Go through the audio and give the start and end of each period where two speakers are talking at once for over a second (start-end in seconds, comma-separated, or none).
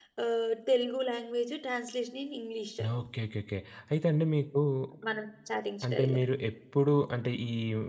none